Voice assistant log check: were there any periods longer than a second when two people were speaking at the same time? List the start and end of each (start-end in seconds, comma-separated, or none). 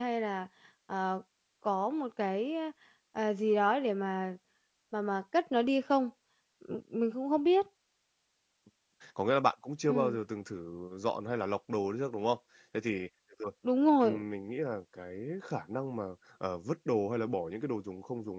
none